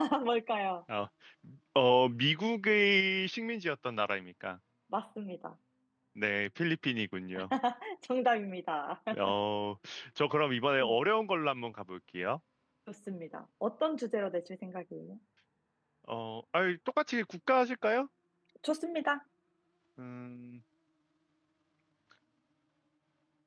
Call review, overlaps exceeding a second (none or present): none